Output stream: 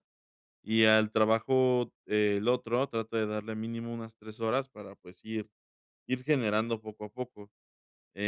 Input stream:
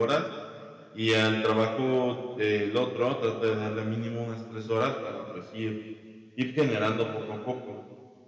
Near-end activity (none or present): none